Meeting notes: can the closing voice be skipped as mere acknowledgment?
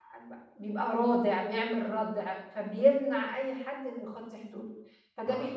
Yes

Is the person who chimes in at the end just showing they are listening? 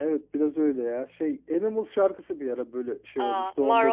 No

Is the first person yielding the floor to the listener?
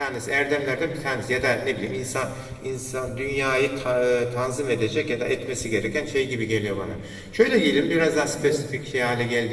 No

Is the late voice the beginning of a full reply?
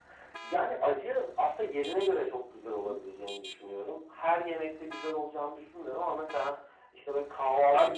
No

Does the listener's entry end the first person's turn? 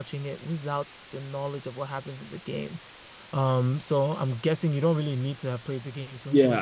Yes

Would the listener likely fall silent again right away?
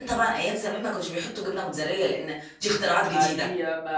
No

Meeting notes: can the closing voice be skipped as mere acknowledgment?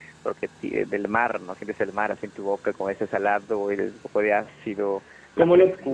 No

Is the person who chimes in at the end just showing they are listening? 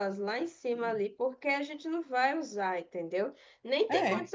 Yes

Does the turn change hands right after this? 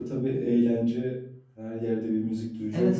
Yes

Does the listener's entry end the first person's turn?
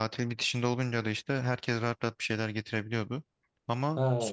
Yes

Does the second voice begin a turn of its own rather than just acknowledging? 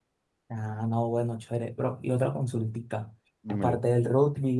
No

